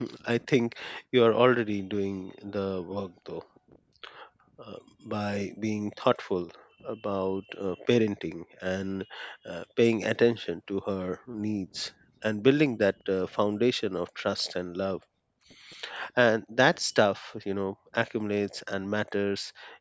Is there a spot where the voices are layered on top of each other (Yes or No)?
No